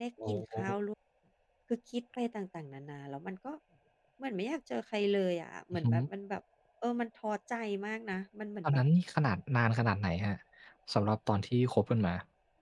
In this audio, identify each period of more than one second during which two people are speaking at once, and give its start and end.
none

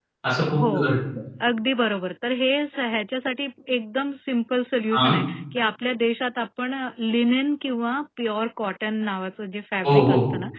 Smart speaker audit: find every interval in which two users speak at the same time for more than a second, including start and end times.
none

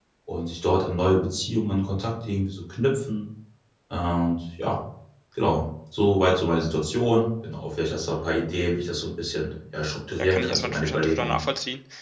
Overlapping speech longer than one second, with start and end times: 10.2-11.4

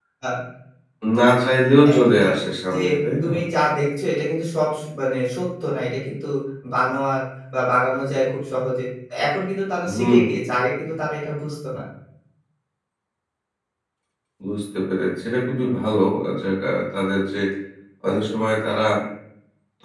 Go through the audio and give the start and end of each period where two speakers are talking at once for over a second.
none

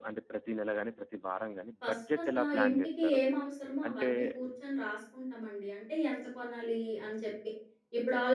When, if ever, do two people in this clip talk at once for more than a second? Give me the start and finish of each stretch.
1.8-3.2

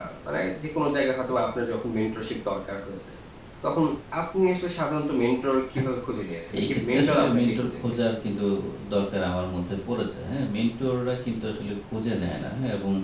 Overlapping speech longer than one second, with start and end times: 6.6-7.9

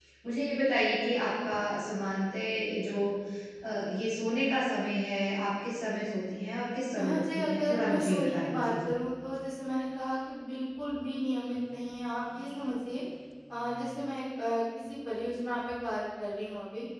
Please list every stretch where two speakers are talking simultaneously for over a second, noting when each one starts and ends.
7.0-8.9

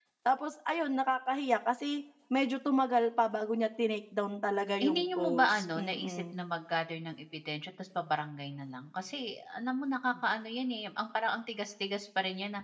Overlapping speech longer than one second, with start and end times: 4.8-6.4

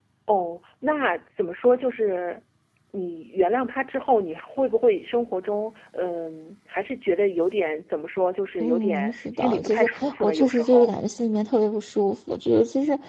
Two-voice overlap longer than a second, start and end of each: 8.6-10.9

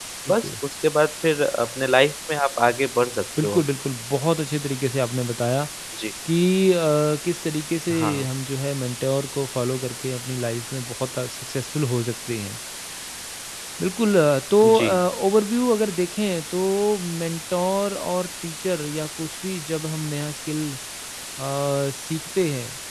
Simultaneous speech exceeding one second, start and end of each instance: none

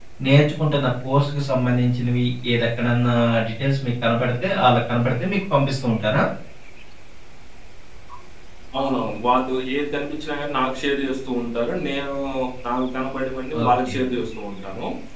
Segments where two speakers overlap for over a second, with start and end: none

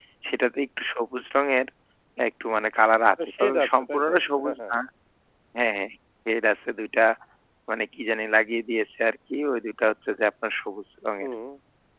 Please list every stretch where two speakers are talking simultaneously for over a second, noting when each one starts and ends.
3.2-4.7

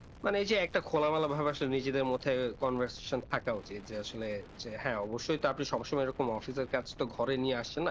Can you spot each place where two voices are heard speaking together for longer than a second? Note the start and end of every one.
none

